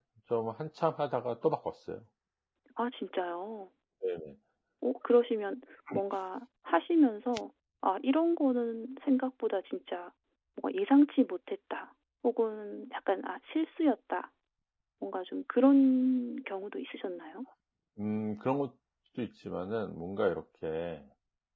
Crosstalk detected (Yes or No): No